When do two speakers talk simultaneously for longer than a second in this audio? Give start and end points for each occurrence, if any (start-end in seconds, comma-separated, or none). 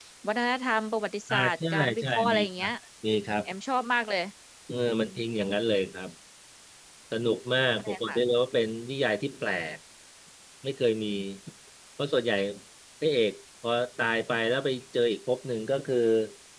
1.3-2.7